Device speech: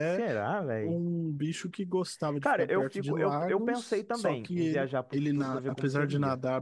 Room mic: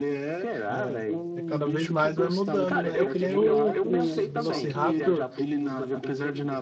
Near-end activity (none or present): present